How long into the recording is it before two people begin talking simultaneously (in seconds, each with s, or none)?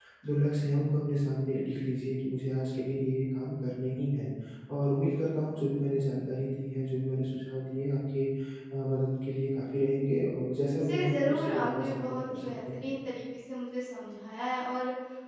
10.8 s